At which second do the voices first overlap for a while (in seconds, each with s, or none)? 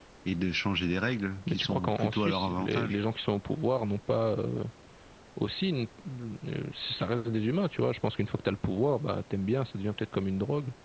1.5 s